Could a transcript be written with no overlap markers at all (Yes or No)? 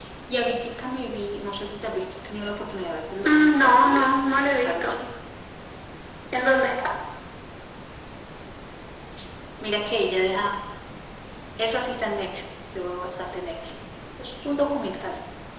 No